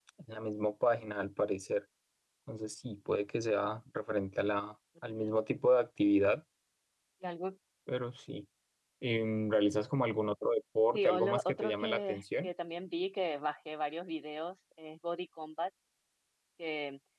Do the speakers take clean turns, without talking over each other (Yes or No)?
No